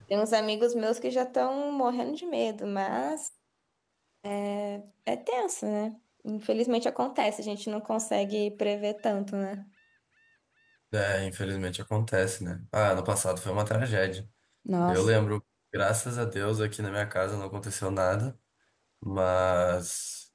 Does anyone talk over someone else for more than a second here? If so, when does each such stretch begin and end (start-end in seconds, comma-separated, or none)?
none